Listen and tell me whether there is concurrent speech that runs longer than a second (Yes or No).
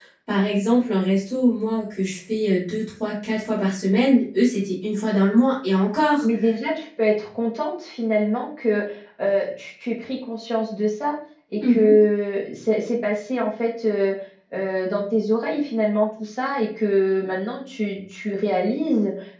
No